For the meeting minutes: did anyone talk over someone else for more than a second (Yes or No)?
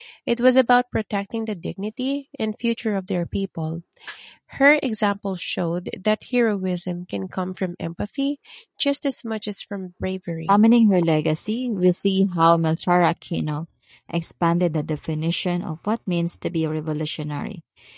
No